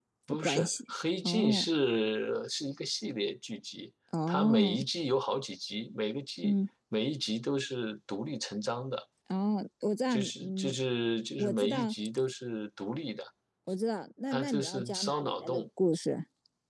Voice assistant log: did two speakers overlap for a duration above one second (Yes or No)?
Yes